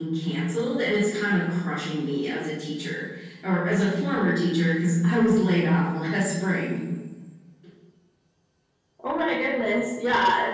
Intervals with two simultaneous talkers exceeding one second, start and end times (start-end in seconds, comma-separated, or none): none